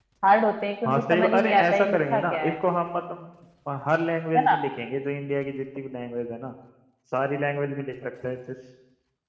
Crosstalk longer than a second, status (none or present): present